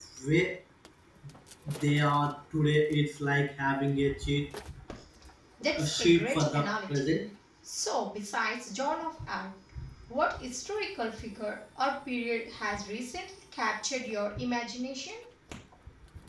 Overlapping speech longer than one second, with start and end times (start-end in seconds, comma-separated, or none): 5.8-7.0